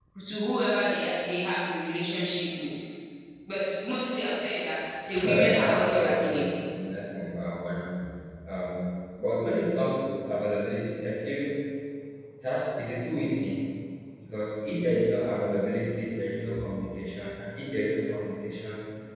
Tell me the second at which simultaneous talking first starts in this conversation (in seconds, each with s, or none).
5.1 s